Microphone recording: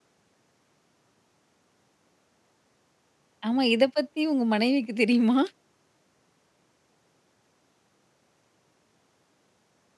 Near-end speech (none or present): present